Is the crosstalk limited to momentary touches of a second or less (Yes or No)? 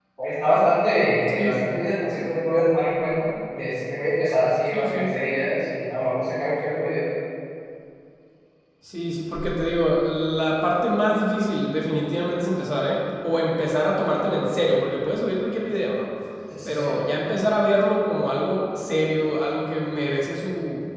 Yes